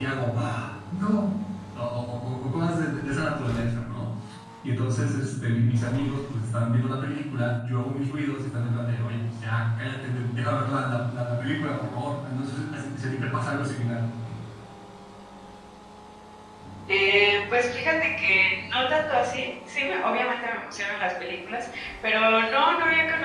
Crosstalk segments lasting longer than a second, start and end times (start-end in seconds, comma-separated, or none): none